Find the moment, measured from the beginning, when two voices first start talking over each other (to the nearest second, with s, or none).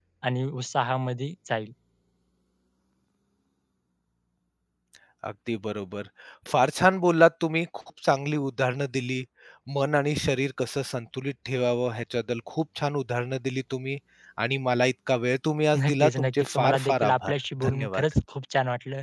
16 s